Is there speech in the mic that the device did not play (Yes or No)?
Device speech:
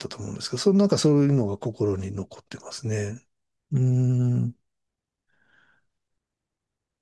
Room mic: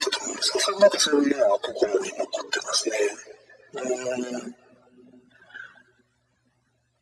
No